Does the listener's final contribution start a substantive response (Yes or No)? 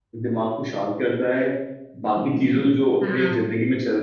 No